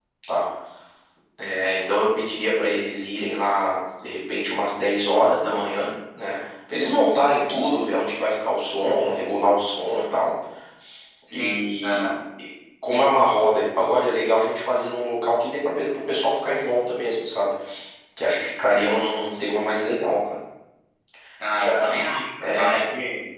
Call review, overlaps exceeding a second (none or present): present